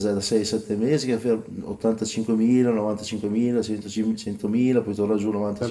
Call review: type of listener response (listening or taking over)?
taking over